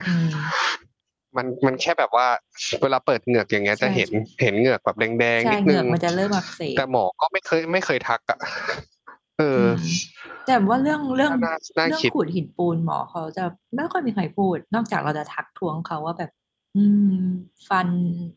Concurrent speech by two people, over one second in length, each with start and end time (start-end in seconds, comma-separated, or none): none